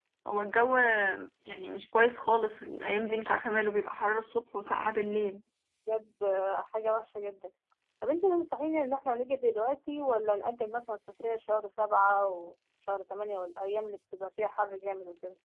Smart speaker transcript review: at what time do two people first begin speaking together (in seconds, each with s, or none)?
none